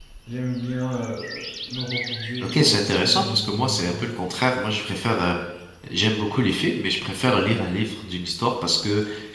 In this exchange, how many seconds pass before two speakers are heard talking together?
2 s

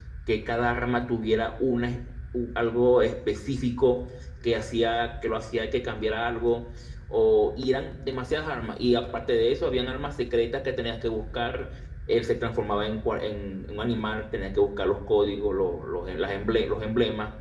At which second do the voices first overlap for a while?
none

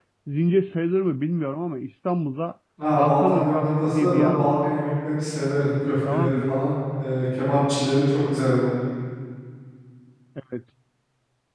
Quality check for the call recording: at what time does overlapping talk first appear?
3 s

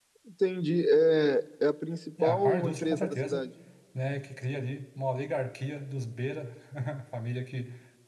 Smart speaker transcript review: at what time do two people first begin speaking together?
2 s

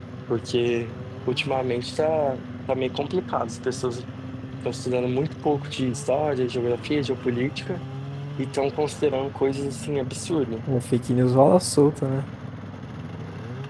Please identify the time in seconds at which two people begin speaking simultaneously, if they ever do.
none

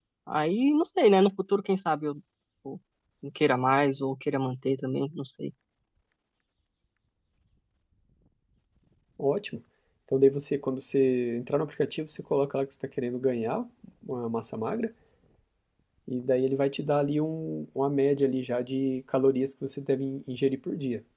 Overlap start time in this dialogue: none

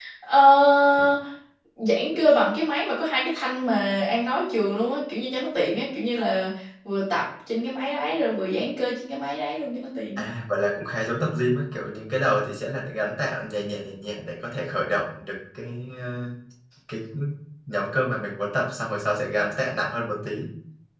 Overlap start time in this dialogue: none

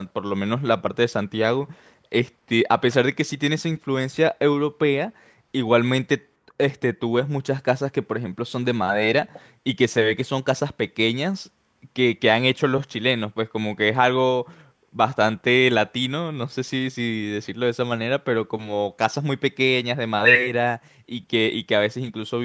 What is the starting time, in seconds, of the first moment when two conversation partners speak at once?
none

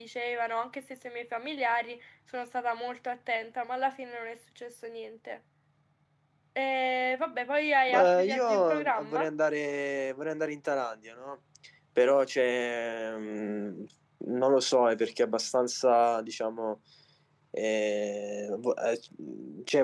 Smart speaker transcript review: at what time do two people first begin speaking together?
8 s

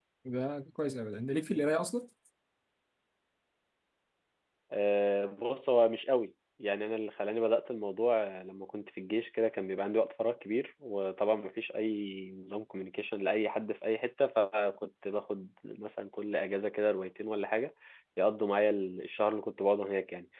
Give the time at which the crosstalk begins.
none

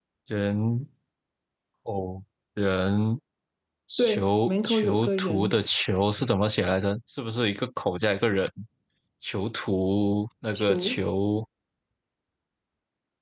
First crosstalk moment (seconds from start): 4 s

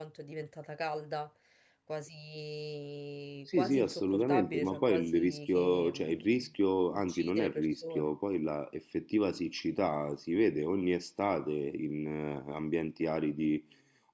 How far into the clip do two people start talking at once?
4 s

